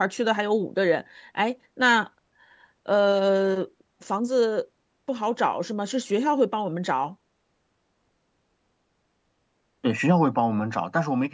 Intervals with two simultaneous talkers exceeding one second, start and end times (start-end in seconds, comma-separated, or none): none